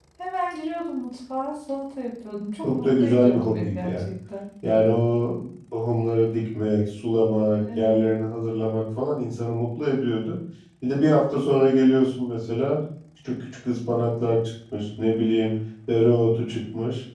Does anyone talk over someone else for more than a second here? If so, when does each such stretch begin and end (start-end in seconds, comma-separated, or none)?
2.6-4.1